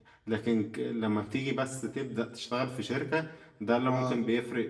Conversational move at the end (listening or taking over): listening